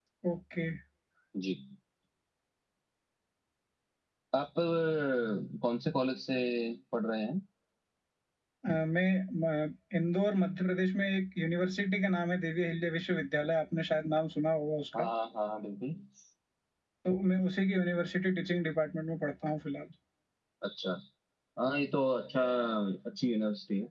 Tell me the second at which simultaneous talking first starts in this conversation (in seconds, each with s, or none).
none